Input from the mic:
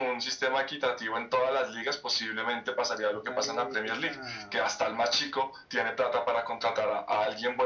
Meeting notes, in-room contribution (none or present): present